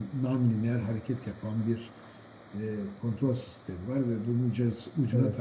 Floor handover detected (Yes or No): No